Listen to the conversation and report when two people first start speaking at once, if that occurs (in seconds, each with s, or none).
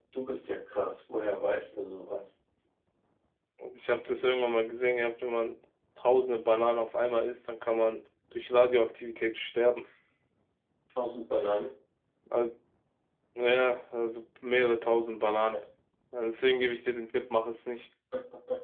none